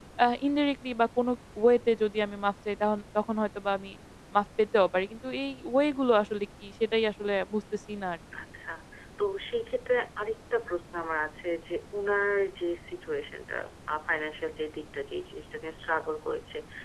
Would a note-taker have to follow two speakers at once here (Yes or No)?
No